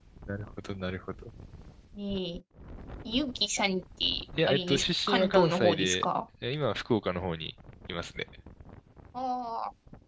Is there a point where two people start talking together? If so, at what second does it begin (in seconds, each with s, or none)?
4.5 s